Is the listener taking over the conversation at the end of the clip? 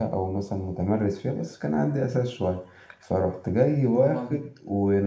No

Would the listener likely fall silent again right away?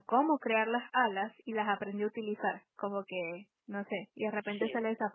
Yes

